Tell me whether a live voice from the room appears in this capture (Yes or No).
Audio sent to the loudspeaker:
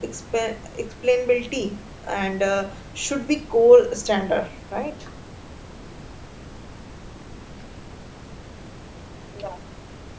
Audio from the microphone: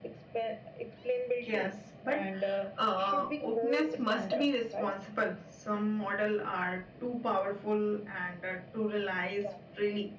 Yes